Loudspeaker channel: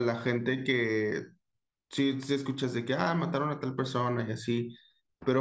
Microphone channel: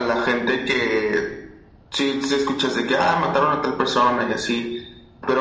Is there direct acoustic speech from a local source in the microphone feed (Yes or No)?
No